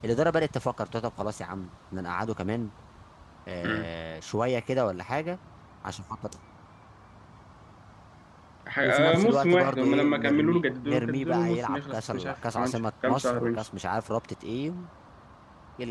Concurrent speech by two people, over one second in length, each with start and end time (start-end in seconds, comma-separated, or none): 8.8-13.6